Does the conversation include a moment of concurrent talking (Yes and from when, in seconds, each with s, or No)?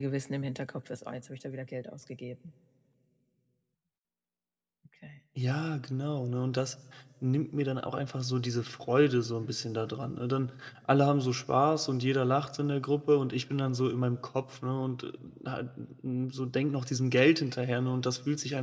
No